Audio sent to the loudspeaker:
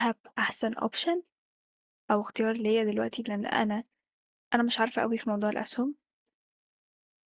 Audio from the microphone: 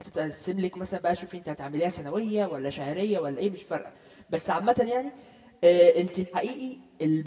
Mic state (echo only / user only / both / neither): user only